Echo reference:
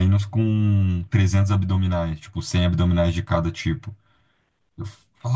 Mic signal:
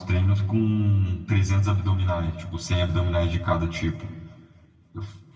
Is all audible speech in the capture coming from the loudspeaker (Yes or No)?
Yes